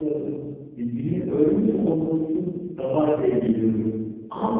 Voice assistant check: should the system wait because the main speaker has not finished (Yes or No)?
No